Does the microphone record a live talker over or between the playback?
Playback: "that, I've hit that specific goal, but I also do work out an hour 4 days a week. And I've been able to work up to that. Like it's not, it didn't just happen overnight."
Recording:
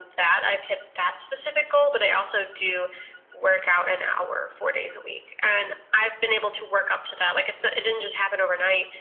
No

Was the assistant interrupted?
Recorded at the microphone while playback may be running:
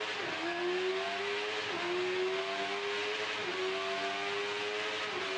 No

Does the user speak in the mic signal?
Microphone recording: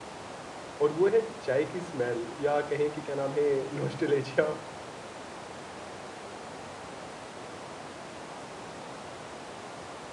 Yes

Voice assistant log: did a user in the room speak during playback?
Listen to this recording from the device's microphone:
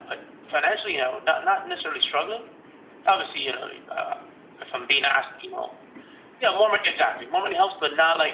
No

